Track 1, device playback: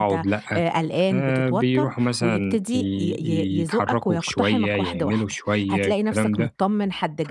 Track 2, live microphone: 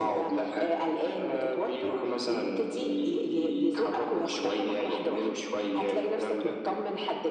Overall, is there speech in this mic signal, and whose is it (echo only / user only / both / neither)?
echo only